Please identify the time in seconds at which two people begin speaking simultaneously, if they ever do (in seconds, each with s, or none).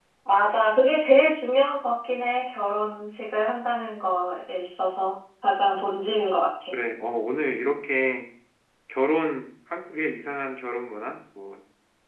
none